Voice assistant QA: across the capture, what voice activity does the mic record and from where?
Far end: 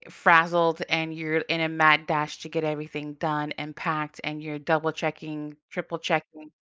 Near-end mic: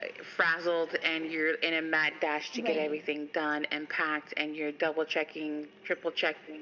both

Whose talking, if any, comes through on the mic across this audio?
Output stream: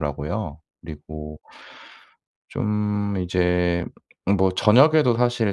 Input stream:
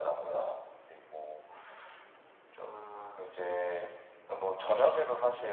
echo only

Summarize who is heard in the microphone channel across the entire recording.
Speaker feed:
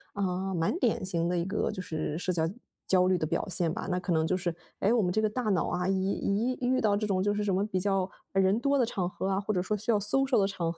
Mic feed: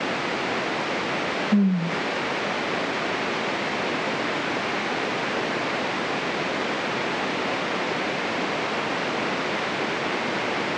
user only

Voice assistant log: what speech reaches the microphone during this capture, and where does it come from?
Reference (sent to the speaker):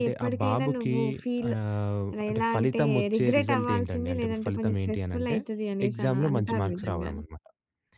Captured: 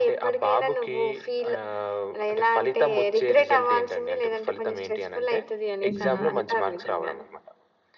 both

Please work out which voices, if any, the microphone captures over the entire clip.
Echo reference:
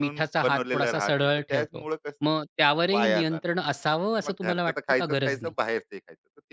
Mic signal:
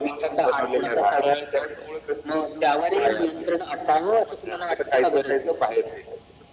echo only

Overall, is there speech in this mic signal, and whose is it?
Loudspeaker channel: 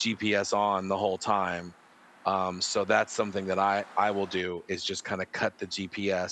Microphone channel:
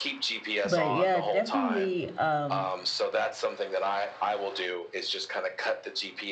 both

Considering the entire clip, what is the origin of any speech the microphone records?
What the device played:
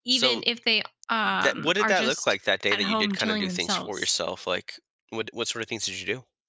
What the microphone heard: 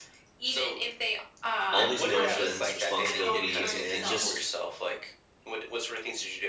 both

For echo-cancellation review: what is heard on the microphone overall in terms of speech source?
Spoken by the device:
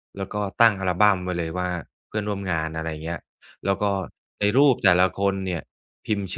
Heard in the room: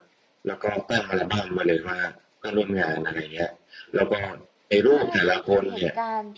both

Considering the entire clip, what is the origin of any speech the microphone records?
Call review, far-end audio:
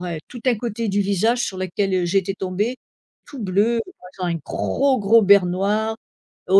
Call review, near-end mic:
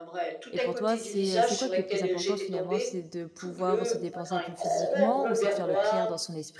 both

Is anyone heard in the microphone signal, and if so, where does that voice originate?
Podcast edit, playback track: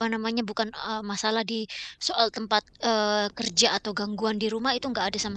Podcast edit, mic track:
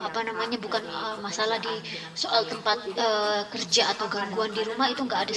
both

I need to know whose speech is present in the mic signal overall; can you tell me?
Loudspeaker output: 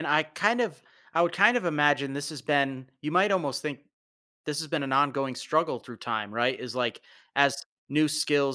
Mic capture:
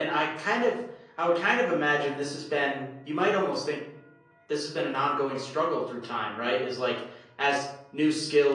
echo only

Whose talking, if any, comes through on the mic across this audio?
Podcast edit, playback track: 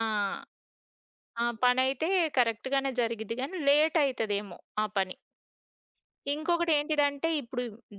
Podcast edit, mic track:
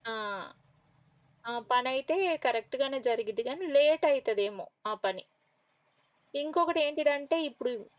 echo only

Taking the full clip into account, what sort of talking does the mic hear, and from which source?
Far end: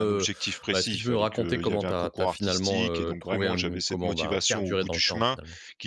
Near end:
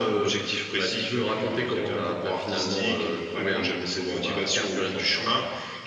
echo only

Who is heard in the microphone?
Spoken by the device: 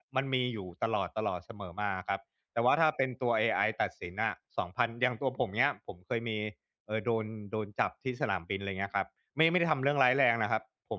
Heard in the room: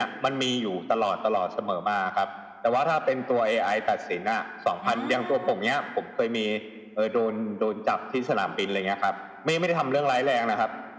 both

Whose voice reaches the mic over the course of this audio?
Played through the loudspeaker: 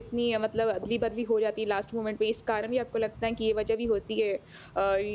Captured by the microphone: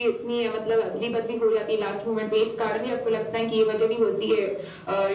echo only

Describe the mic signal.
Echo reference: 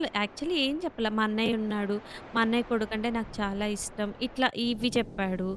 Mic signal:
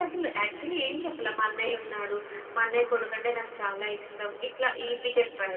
echo only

